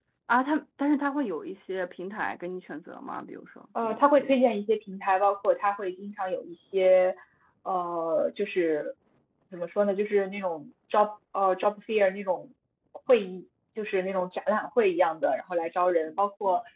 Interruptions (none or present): none